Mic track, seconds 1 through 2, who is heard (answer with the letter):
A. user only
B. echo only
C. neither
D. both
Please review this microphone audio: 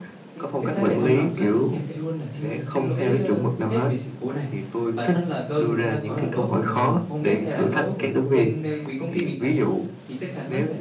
D